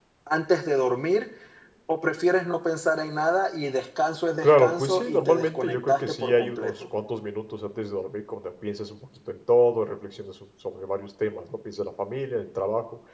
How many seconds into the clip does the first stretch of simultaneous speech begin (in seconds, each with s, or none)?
4.4 s